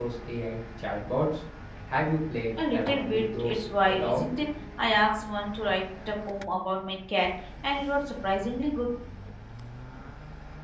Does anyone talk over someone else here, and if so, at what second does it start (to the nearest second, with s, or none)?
3 s